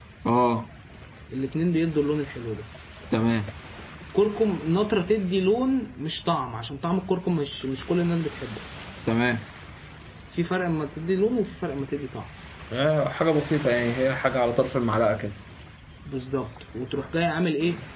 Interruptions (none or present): none